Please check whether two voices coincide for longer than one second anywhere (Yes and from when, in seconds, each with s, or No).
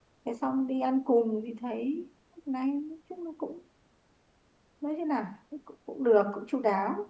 No